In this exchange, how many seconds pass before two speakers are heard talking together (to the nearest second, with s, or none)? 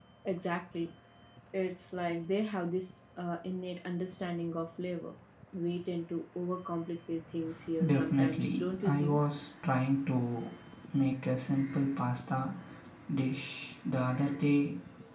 8 s